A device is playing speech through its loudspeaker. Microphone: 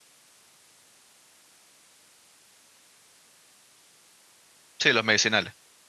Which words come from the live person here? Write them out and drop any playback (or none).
Sí, los medicinales.